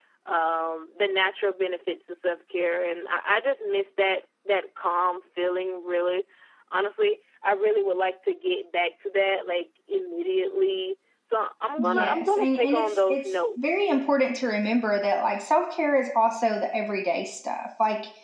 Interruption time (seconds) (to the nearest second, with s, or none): 12 s